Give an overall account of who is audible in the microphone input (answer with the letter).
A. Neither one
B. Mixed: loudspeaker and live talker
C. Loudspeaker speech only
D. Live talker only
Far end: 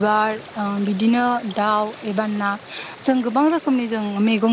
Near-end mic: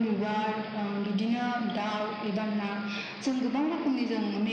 C